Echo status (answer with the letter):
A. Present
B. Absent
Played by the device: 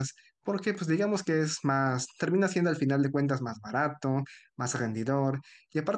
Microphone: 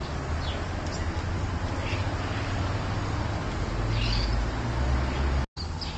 B